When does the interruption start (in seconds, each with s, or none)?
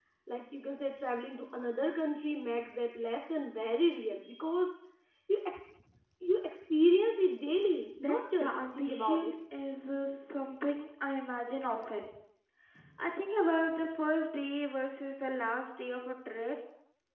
8.0 s